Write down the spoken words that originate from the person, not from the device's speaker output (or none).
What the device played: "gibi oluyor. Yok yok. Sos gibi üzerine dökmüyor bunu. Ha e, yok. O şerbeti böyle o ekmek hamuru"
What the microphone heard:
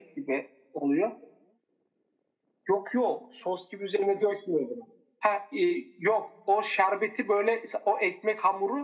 none